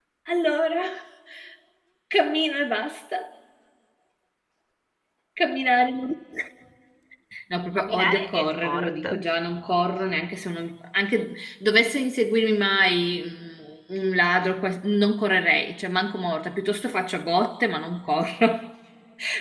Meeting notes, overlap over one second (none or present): present